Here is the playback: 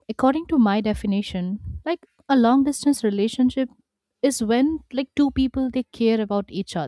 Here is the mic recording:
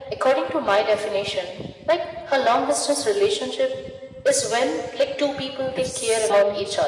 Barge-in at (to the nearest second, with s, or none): 6 s